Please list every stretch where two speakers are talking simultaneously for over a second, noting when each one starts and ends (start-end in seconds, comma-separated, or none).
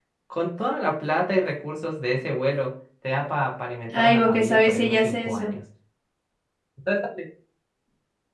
3.9-5.5